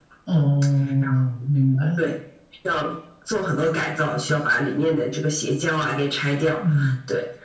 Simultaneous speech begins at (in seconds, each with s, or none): none